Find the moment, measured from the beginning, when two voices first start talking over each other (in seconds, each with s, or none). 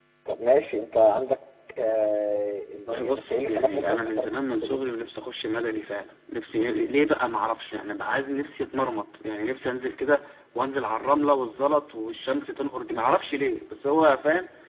2.8 s